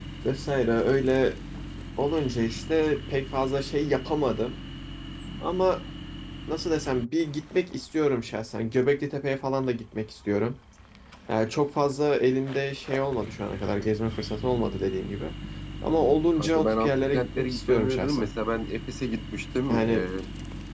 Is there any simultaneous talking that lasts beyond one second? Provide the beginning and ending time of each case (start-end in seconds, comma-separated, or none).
15.9-18.3